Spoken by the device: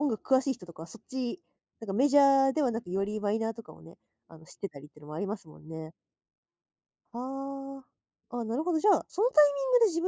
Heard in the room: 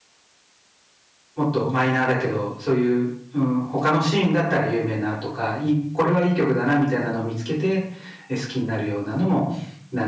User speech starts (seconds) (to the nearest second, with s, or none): 1 s